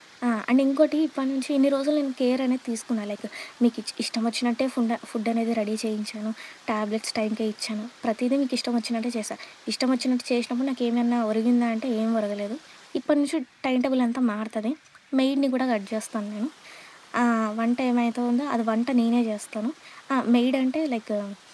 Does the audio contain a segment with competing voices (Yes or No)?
No